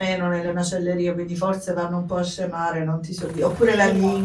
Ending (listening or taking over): listening